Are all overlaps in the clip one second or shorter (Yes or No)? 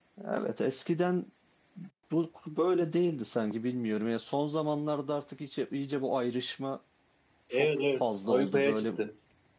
No